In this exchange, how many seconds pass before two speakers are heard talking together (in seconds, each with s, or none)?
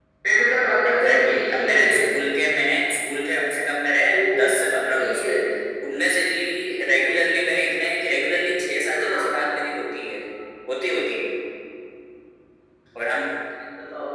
0.9 s